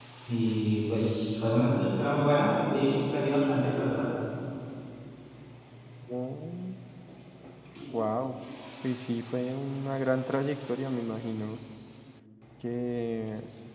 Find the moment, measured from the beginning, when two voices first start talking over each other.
none

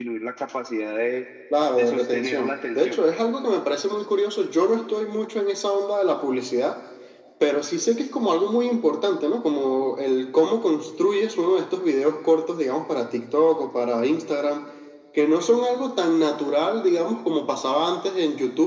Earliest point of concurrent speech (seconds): 1.8 s

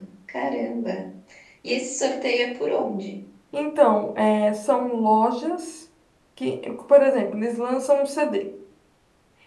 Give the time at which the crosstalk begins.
none

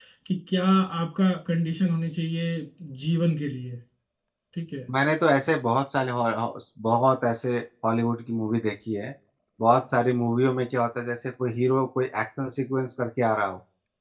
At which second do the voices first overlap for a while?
none

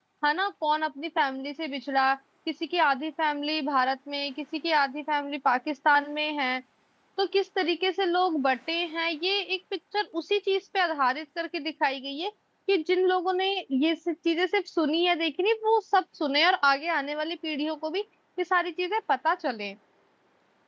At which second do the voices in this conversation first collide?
none

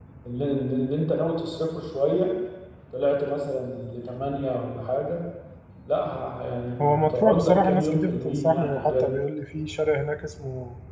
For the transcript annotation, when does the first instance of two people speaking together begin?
6.8 s

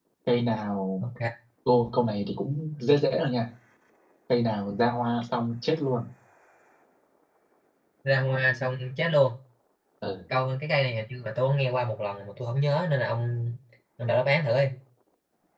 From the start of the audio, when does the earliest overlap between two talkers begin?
none

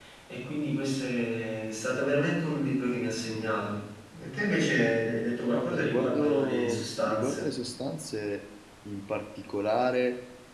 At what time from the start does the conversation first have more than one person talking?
5.5 s

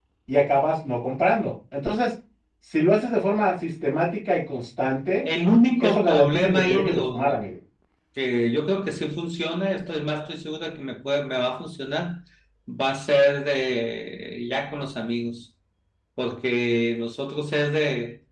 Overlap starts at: 5.8 s

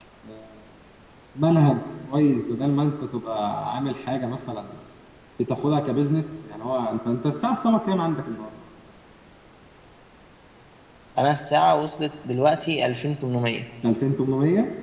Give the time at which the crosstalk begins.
none

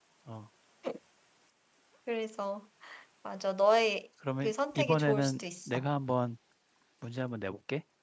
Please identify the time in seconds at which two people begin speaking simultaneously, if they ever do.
4.2 s

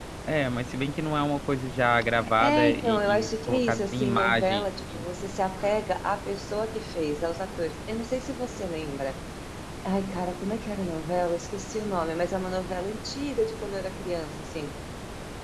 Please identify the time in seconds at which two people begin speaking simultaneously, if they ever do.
2.2 s

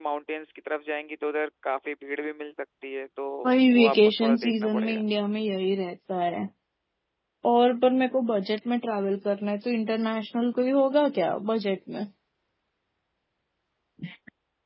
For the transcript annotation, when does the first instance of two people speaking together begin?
3.7 s

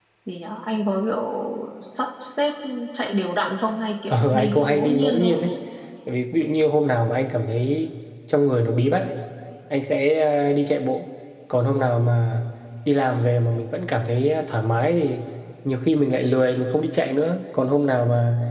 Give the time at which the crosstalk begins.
4.1 s

